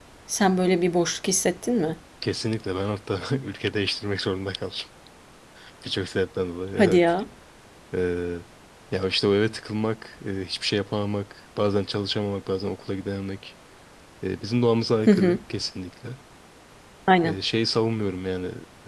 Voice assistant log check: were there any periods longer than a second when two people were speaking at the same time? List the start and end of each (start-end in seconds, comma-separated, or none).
none